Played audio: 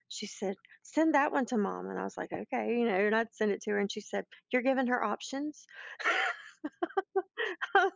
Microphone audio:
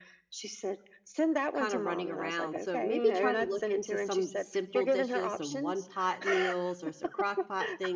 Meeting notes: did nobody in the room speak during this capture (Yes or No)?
No